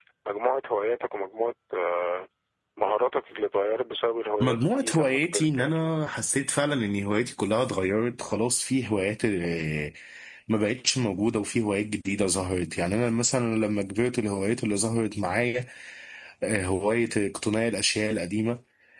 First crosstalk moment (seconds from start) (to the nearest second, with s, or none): 4 s